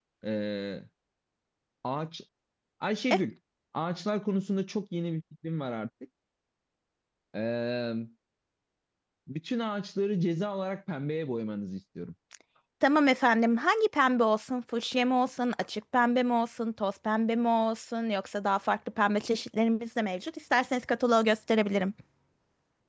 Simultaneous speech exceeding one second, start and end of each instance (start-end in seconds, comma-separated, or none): none